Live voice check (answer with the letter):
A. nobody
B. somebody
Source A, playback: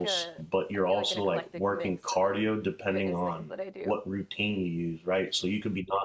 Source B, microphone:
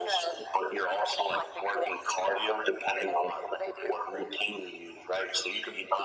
A